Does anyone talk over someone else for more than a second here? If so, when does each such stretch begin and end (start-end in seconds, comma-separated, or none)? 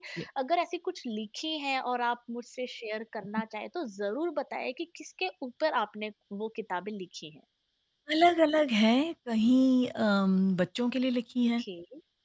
none